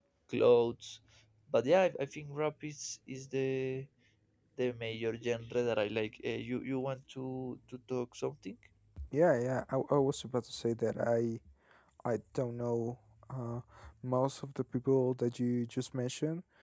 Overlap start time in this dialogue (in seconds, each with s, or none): none